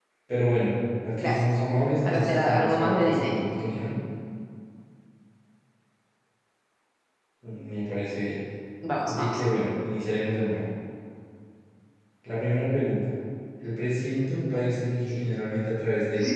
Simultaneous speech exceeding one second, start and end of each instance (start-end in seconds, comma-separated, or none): 2.0-3.4